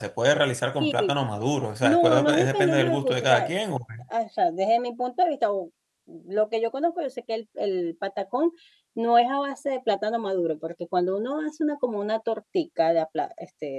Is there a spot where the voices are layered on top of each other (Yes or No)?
Yes